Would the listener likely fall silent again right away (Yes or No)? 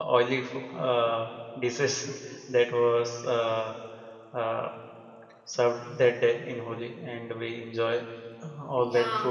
No